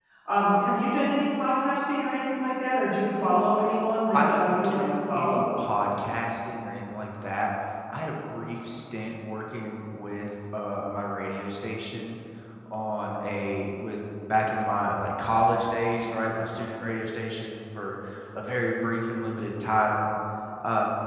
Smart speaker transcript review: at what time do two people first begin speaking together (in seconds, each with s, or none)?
4.1 s